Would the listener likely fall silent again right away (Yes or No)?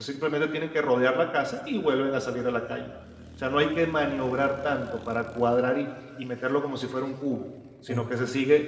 Yes